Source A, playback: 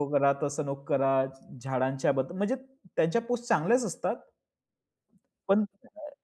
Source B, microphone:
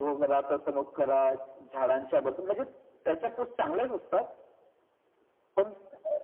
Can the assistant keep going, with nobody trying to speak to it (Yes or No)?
Yes